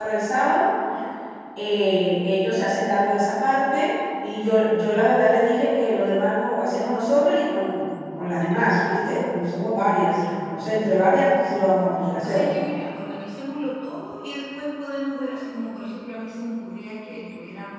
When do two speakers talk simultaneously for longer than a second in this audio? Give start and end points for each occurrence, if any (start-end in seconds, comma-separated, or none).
none